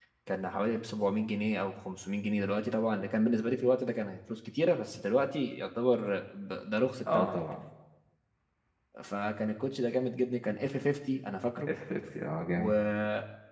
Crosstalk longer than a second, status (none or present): none